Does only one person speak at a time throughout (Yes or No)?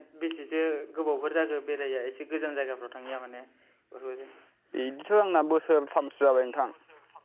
Yes